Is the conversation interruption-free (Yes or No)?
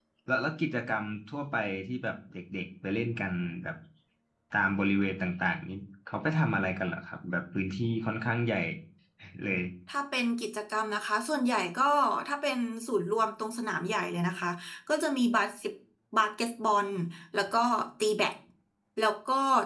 Yes